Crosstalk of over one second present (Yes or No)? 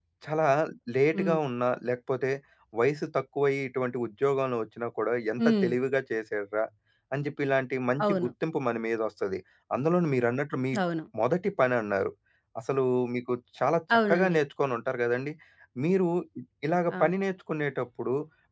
No